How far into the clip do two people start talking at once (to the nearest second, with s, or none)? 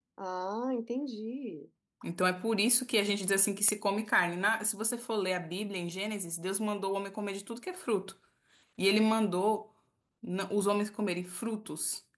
none